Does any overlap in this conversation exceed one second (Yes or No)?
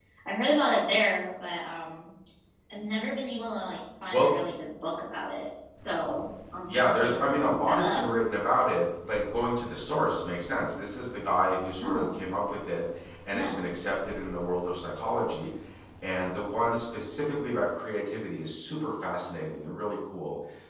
Yes